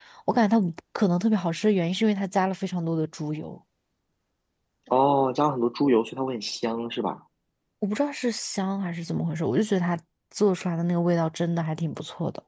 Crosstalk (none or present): none